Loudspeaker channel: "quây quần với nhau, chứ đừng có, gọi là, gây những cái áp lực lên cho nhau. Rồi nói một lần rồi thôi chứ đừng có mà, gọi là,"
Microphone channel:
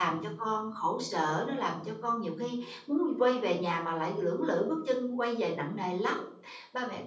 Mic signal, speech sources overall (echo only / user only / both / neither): user only